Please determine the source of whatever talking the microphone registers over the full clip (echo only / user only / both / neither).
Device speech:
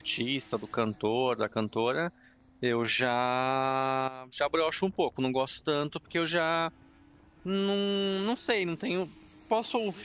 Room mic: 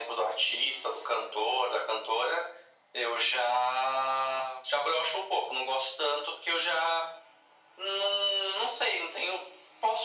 echo only